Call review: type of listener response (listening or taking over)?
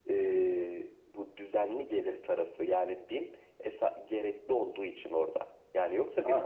listening